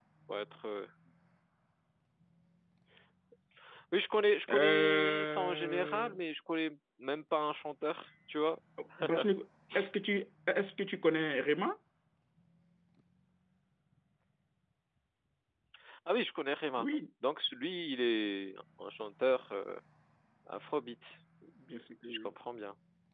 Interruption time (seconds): 4.5 s

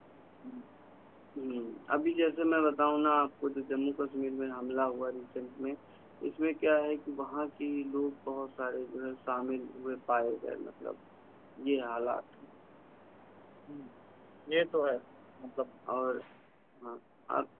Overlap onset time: none

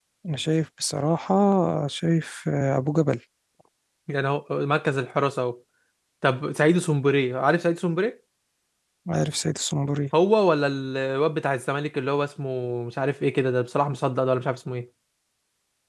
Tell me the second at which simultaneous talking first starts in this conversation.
none

